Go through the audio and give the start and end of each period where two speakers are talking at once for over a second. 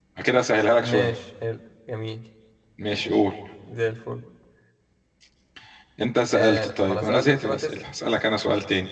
6.3-7.8

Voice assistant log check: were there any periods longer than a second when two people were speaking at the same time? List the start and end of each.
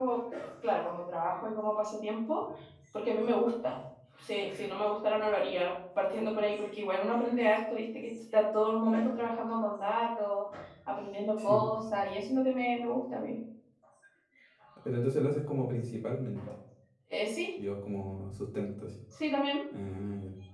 none

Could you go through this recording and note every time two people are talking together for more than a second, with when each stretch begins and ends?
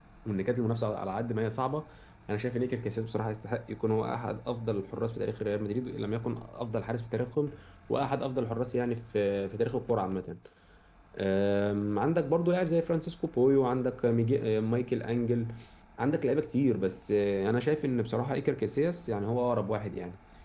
none

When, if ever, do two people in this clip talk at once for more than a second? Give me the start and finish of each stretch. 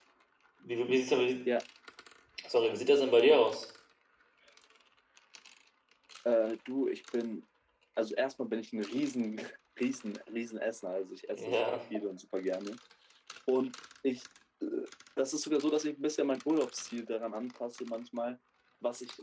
none

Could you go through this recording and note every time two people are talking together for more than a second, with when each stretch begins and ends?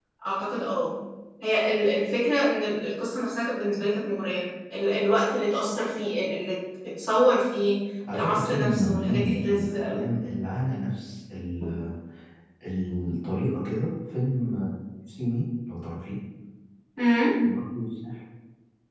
8.1-10.1

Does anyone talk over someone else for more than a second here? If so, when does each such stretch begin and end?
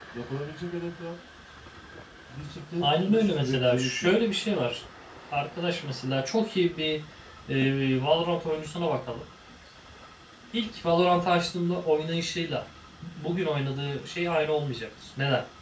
2.8-4.3

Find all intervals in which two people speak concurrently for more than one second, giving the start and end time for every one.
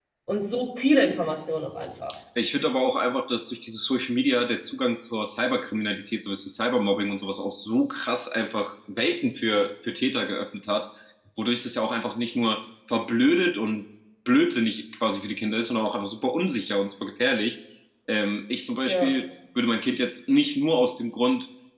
none

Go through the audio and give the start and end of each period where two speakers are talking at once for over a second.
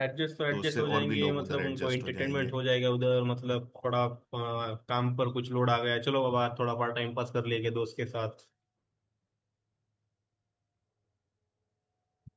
0.5-2.5

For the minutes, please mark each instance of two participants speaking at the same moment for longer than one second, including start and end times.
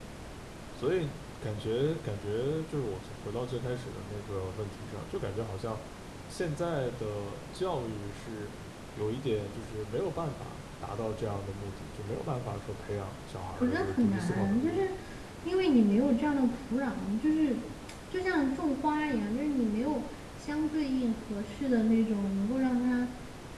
13.6-14.9

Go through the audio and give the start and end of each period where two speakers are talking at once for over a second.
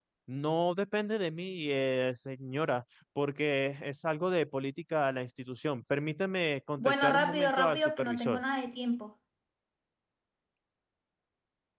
6.8-8.4

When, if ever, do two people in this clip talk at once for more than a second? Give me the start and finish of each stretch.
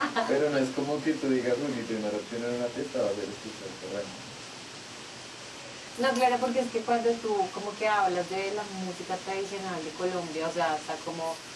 none

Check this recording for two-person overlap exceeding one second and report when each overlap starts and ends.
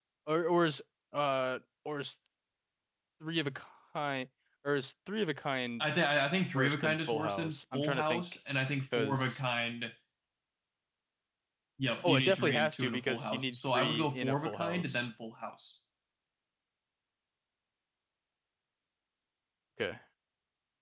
6.5-8.2, 12.0-15.1

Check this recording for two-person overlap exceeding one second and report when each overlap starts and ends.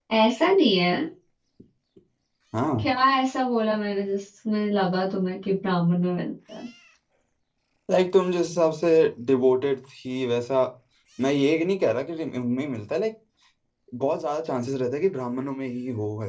none

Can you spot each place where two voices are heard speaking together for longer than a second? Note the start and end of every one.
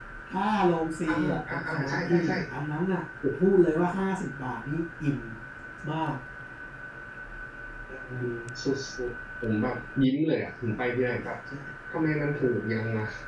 1.1-2.3

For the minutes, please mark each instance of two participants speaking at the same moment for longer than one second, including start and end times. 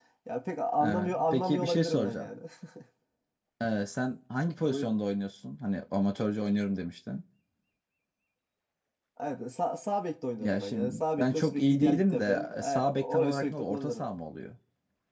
0.8-2.3, 10.4-14.0

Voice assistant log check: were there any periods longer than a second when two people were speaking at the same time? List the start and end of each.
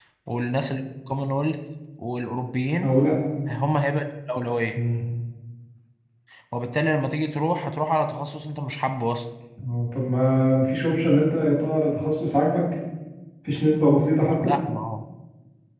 none

